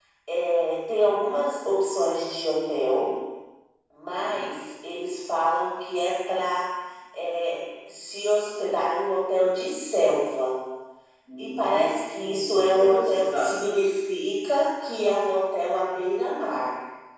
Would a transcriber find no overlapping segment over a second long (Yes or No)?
No